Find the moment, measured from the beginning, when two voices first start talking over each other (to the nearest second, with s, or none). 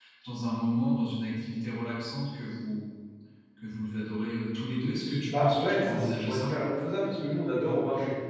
5 s